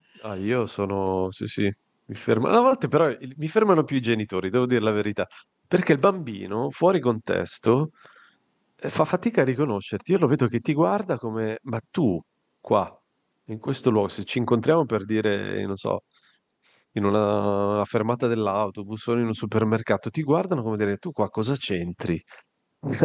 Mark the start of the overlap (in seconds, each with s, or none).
none